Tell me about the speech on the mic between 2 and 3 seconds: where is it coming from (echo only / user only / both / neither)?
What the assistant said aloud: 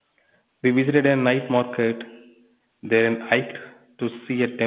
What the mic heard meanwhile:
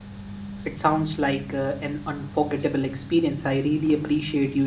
user only